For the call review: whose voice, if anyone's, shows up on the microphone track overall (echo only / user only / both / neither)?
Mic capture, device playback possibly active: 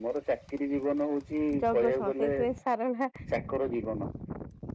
both